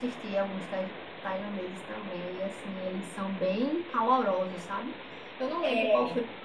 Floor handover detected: No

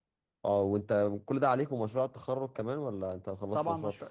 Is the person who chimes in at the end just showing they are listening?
No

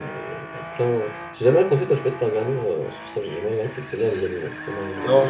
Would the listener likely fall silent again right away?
No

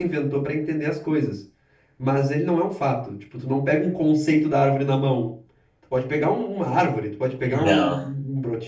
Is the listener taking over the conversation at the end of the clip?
No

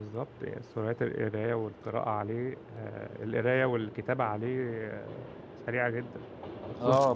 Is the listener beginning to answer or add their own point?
Yes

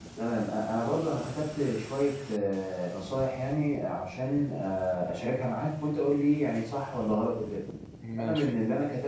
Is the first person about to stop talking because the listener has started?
No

